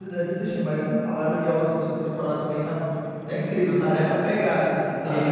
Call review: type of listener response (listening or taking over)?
listening